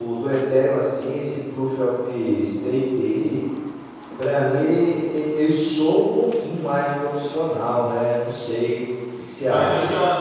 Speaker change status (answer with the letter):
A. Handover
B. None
A